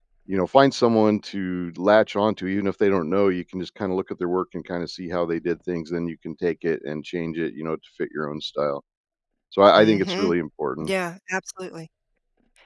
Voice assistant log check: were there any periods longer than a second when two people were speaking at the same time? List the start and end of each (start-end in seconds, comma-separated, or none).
none